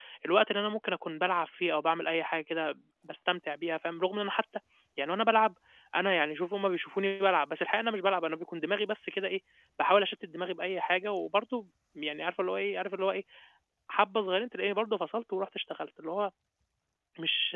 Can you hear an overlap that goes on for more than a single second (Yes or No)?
No